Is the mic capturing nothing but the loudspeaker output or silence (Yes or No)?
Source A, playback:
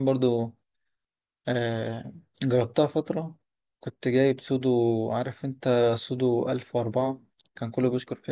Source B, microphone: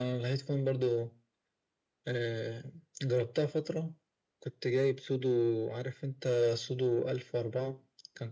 Yes